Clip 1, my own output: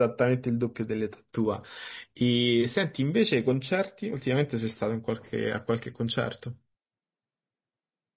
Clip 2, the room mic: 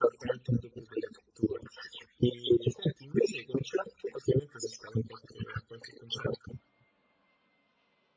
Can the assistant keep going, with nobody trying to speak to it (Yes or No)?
Yes